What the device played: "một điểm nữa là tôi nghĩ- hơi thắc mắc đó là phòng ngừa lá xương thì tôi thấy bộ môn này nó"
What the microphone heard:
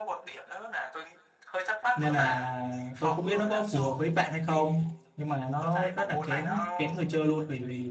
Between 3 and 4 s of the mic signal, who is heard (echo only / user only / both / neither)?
both